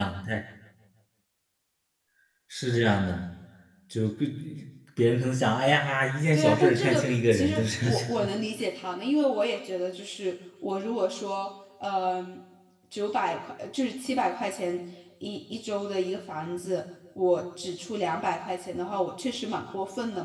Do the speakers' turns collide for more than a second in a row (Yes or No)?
Yes